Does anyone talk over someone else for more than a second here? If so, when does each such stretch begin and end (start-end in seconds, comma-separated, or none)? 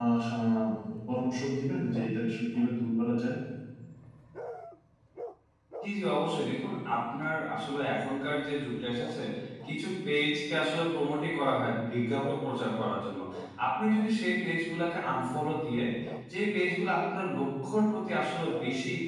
none